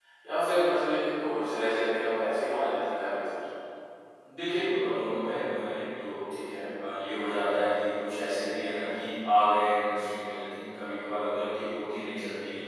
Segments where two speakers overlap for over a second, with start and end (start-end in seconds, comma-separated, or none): none